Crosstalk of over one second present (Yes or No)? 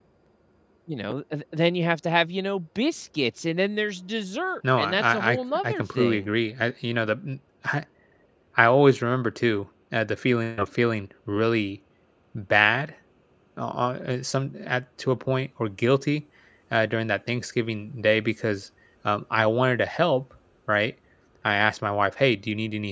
Yes